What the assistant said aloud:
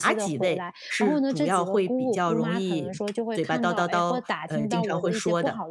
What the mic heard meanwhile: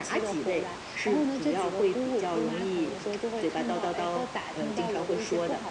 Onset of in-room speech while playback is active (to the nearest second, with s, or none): none